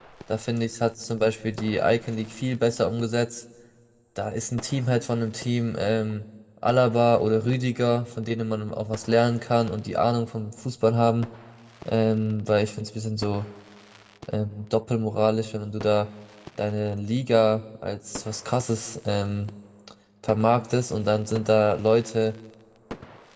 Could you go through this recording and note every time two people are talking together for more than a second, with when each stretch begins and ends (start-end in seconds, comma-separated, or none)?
none